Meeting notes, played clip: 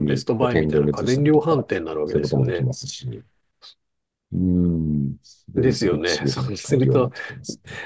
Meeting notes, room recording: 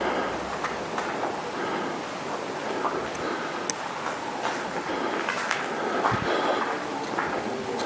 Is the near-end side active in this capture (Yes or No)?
No